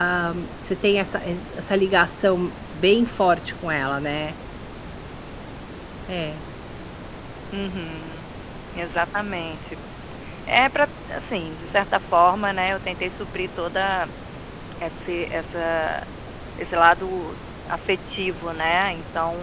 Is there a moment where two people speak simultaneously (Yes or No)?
No